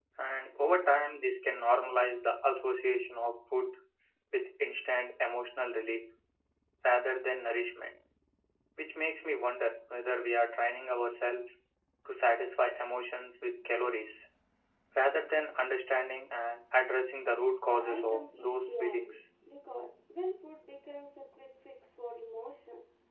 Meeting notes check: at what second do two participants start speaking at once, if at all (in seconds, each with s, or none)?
17.7 s